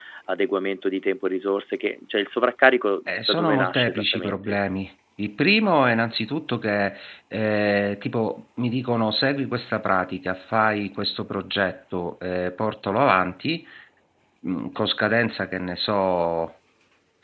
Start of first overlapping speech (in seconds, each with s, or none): 3.1 s